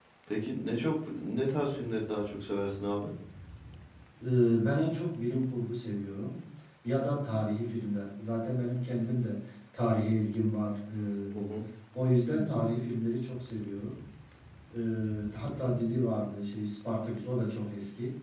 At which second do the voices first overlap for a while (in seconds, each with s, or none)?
none